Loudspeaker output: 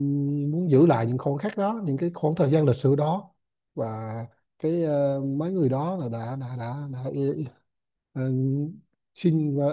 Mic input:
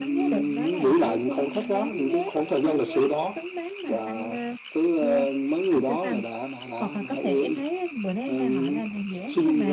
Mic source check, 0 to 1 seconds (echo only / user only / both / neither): both